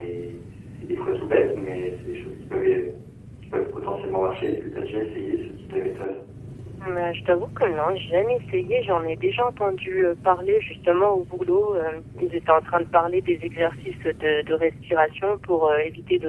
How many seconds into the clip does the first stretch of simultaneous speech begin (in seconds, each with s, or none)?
none